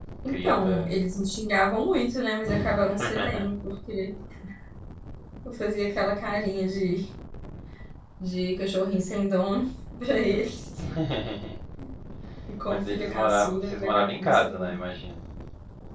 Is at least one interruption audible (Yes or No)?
Yes